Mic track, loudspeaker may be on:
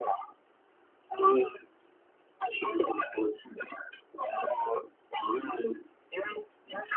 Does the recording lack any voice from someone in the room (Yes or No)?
Yes